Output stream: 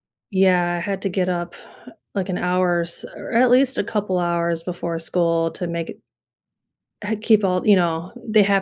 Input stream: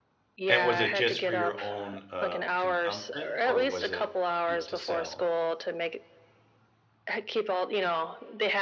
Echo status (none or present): present